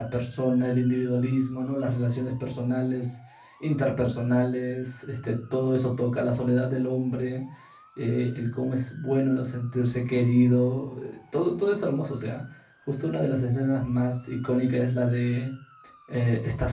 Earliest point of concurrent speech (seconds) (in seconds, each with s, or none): none